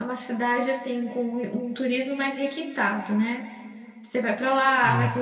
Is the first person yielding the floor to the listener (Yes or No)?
No